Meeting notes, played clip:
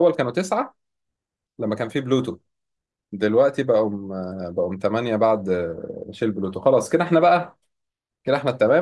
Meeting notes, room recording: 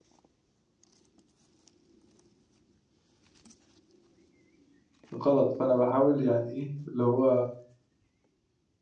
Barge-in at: 5 s

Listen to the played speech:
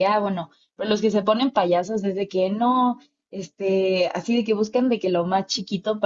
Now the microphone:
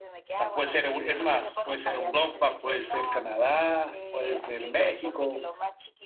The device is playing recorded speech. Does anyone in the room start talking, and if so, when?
0 s

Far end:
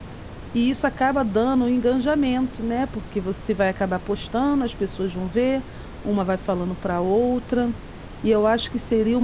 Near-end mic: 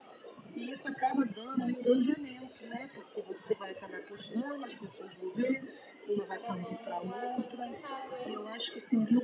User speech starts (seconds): 6 s

